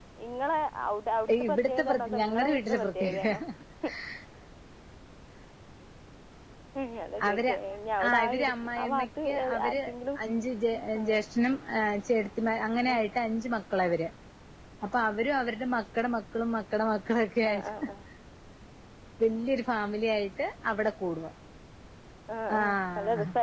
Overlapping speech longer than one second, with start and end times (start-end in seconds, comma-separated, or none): 1.5-3.3, 8.1-9.7